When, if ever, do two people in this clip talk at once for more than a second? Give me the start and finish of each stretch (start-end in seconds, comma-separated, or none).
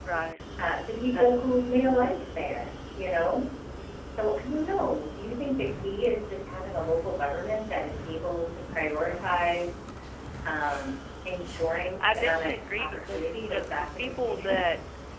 12.0-14.6